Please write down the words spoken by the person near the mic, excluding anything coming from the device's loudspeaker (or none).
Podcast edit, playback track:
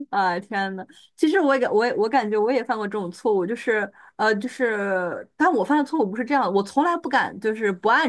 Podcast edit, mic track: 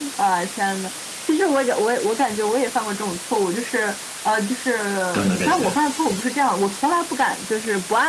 等等这些，